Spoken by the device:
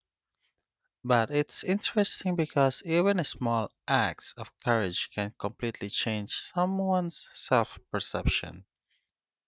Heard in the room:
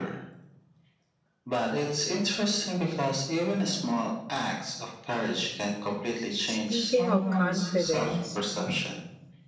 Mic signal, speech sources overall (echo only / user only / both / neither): both